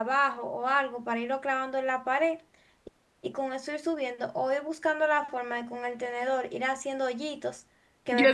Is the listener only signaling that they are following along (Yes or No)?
No